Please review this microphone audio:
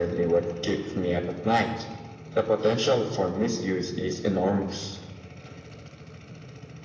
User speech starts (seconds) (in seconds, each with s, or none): none